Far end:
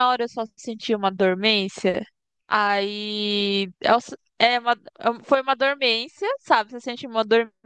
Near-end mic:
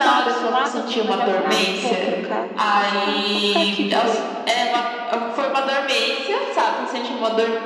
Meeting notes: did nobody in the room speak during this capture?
No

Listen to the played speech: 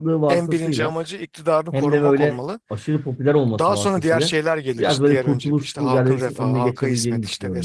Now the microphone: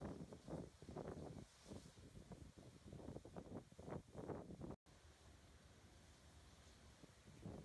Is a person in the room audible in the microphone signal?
No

